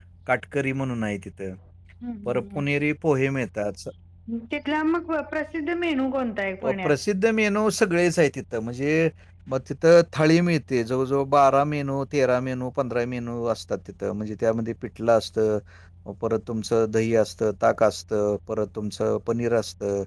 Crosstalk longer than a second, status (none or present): none